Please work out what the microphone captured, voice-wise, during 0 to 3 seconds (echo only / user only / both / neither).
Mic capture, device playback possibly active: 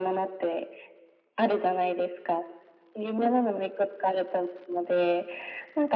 echo only